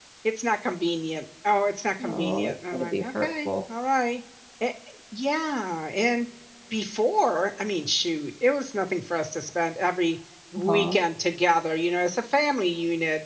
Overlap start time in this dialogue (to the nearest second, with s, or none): 2 s